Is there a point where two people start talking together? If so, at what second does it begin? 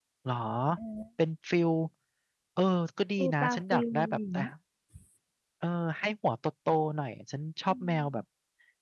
3.2 s

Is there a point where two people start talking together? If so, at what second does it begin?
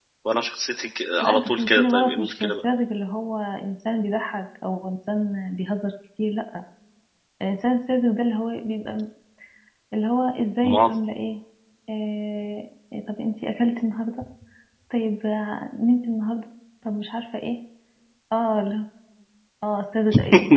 1.2 s

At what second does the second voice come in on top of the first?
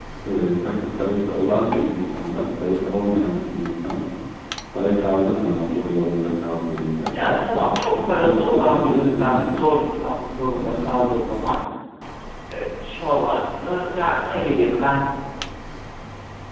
8.0 s

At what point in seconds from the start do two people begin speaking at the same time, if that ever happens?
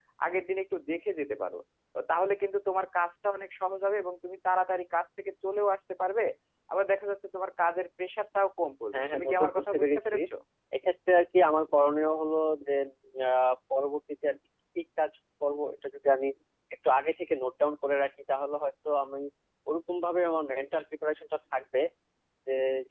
8.9 s

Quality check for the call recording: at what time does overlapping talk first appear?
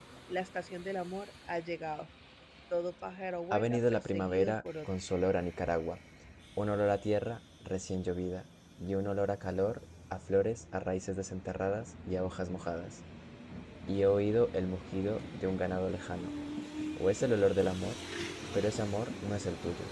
3.5 s

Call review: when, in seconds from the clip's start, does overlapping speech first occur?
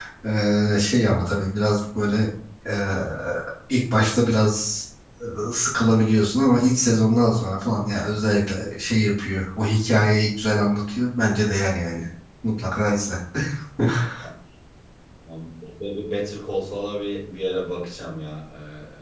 none

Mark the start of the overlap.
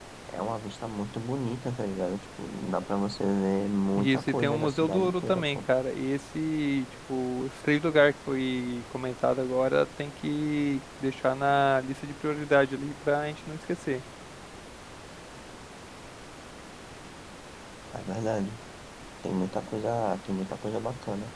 4.0 s

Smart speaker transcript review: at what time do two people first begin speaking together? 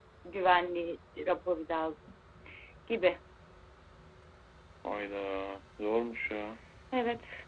none

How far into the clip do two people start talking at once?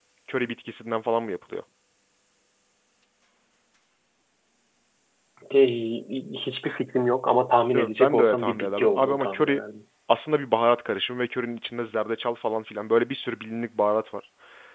7.7 s

